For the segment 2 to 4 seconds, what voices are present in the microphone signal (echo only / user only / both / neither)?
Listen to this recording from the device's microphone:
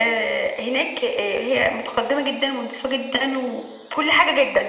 echo only